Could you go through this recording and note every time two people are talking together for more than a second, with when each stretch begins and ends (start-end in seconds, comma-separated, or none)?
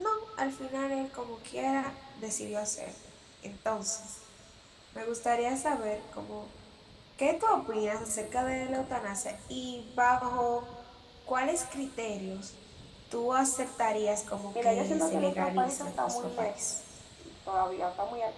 14.6-16.6